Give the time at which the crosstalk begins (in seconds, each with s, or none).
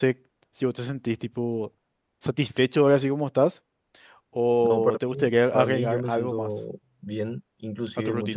4.6 s